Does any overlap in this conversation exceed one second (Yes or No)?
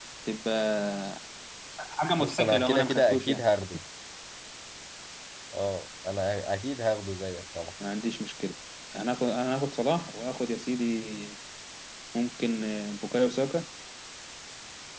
Yes